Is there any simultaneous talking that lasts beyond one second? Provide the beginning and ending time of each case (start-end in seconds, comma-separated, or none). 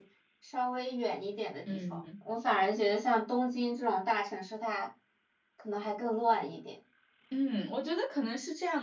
none